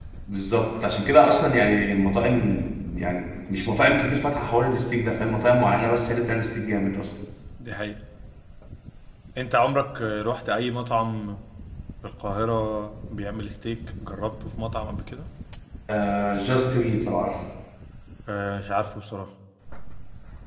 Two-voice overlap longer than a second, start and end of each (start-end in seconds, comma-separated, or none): none